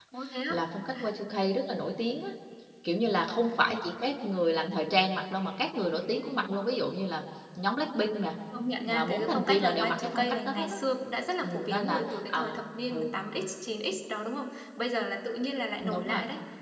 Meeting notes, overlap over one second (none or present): present